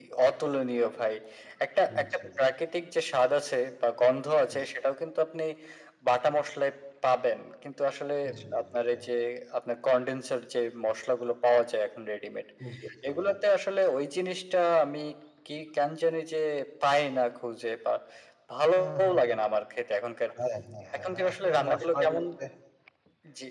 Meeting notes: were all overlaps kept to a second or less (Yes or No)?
No